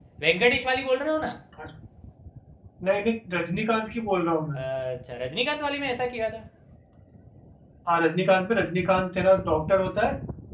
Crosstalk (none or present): none